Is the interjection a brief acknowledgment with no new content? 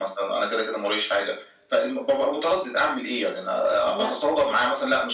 Yes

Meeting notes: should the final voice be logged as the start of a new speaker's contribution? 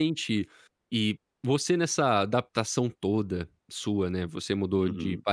No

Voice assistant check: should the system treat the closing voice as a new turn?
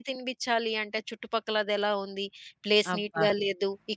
No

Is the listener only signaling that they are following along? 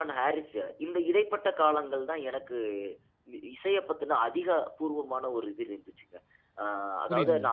Yes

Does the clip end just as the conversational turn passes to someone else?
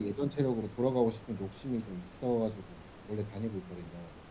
Yes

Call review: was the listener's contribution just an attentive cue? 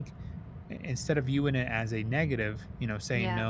Yes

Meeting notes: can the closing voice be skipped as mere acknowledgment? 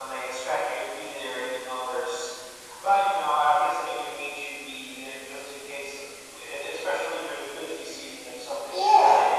No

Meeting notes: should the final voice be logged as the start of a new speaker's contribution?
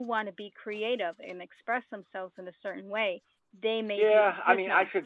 Yes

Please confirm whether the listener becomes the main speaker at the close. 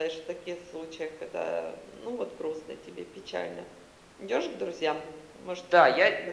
Yes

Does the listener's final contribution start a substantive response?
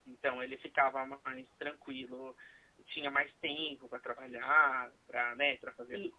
No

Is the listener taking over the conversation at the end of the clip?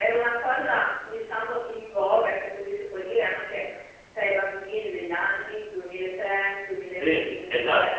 Yes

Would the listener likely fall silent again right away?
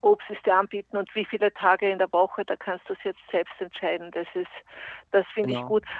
Yes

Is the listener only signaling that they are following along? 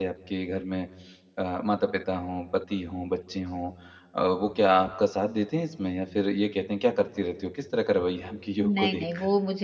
No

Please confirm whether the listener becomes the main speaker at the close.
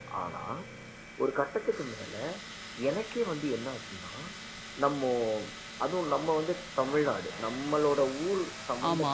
No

